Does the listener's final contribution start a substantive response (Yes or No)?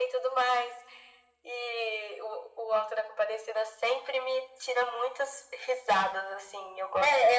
Yes